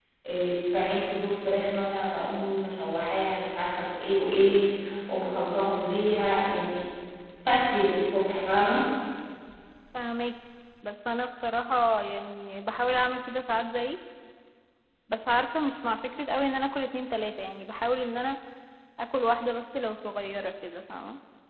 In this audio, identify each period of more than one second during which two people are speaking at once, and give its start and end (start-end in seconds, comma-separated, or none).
none